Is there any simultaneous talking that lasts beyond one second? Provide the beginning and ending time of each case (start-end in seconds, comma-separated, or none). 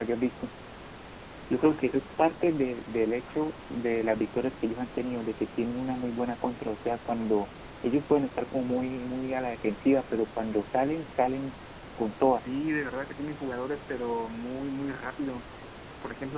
none